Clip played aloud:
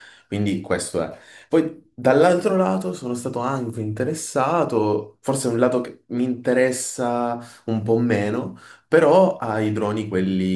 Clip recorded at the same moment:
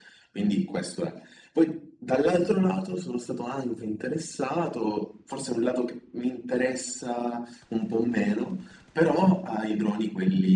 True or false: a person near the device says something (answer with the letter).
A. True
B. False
B